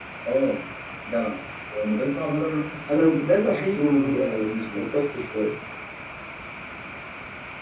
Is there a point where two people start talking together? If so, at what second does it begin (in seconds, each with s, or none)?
2.9 s